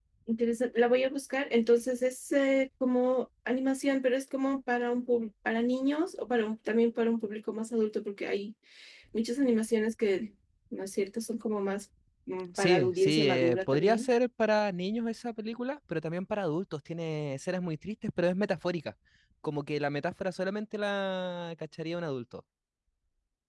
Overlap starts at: 12.6 s

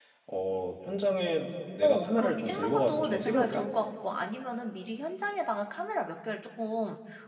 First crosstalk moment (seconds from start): 1.8 s

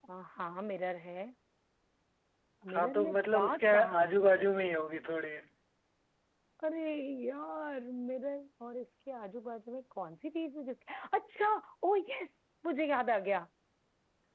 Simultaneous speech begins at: 2.7 s

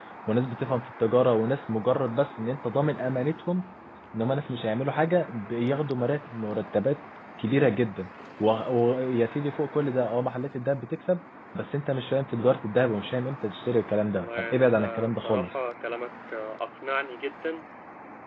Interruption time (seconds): 14.1 s

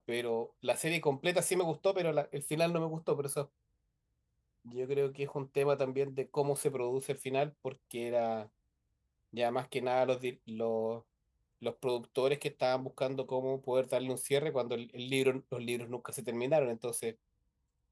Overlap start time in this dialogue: none

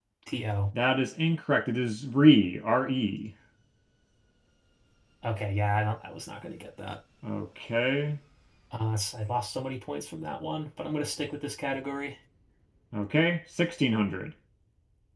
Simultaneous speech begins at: none

